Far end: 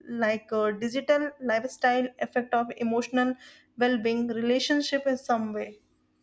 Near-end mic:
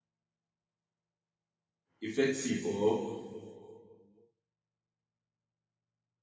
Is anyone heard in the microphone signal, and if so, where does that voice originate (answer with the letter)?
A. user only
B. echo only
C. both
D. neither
A